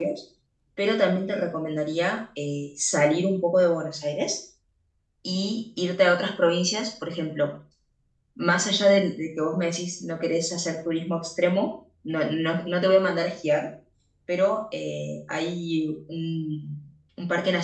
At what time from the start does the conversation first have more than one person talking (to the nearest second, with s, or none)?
none